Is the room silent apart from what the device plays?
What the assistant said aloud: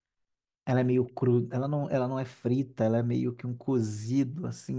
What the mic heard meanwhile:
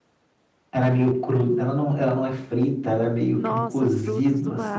No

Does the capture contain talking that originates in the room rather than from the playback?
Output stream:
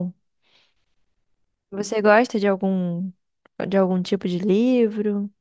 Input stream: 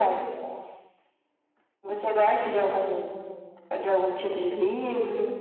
No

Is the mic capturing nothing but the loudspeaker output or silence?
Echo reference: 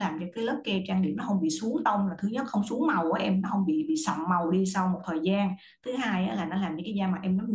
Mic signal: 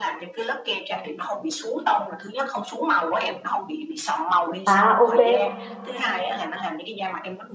No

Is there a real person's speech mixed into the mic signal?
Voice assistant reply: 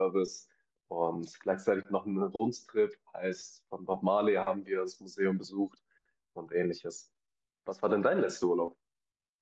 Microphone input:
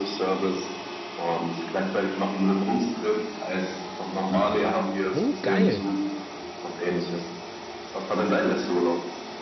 Yes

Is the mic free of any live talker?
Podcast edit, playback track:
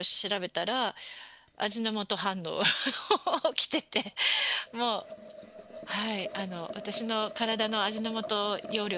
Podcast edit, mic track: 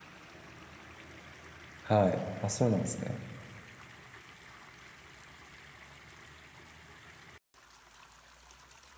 No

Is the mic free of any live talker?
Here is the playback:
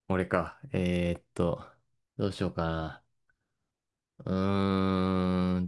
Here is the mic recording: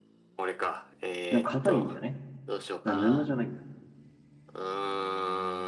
No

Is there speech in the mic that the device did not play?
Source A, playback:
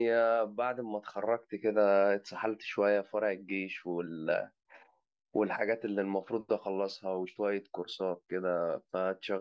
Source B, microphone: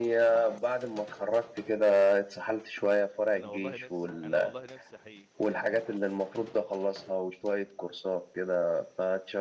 Yes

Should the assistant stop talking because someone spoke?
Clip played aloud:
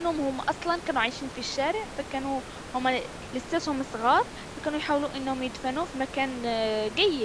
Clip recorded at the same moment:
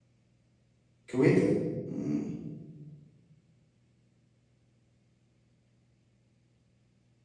Yes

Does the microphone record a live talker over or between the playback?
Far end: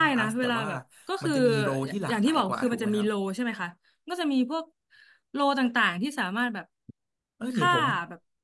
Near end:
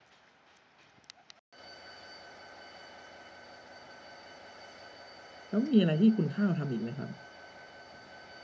Yes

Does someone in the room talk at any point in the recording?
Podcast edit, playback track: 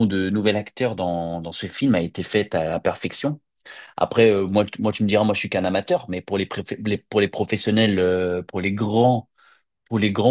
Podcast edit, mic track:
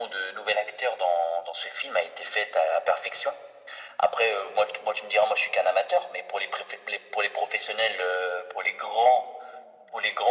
No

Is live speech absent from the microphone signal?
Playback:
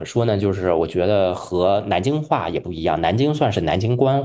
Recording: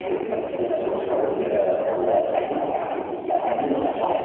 No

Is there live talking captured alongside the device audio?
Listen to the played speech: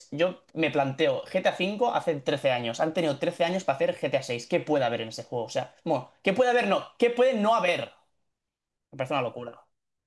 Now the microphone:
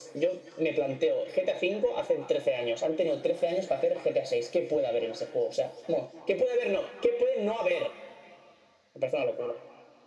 No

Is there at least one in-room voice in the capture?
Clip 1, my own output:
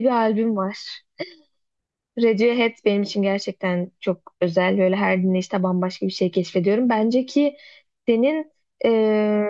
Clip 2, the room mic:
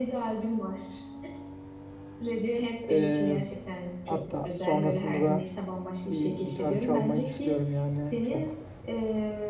Yes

